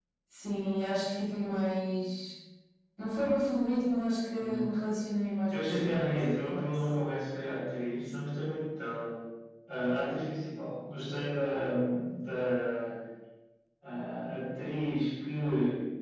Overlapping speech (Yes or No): Yes